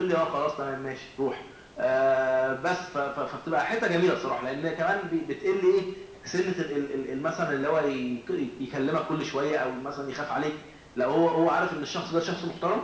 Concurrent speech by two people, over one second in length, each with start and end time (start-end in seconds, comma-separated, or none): none